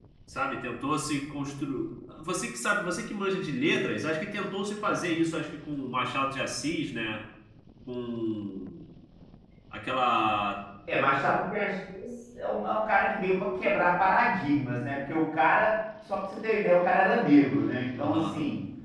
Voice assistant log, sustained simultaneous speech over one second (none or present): none